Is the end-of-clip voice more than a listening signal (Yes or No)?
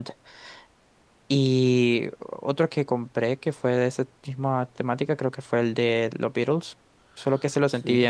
No